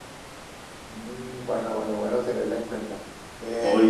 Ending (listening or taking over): taking over